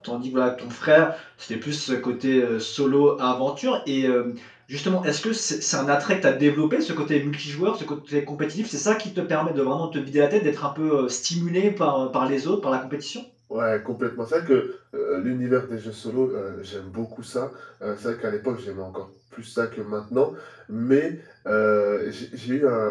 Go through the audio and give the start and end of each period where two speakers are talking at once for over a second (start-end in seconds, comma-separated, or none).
none